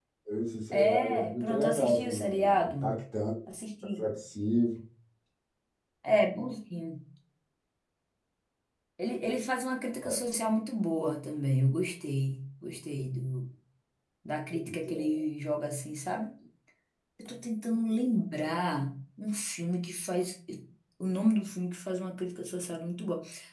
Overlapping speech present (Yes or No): Yes